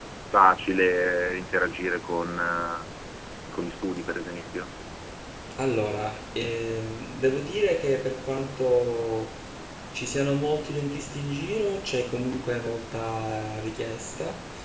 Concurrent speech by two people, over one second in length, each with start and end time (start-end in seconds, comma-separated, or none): none